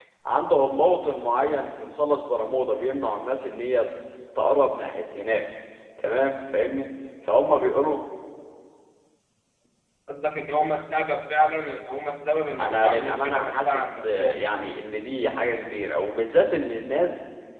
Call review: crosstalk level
present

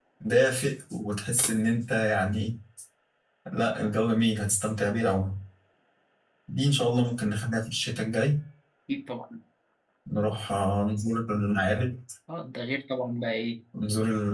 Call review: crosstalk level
none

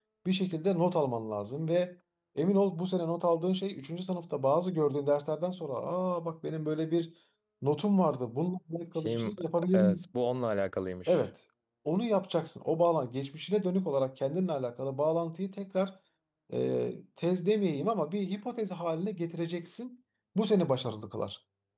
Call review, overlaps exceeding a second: none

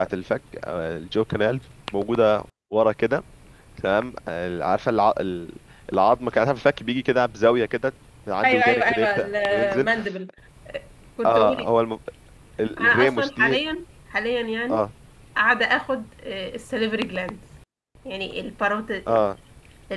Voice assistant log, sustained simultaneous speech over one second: present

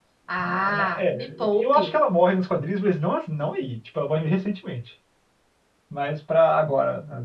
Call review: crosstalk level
present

